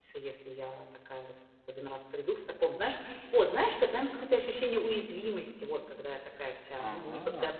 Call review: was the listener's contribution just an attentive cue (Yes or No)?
Yes